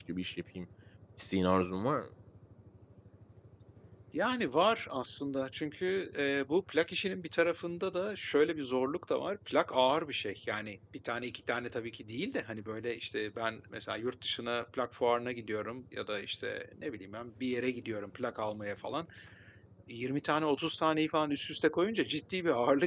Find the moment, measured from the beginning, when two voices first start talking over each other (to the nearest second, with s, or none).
none